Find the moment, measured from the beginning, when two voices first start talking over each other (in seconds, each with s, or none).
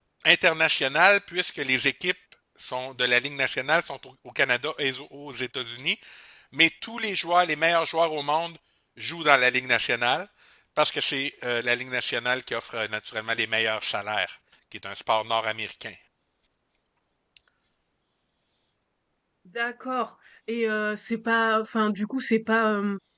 none